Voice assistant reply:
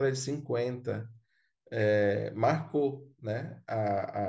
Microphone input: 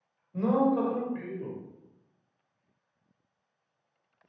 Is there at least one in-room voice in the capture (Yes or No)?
Yes